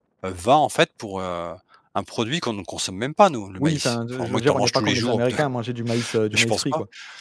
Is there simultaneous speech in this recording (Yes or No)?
Yes